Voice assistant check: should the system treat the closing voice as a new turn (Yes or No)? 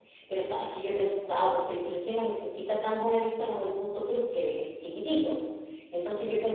No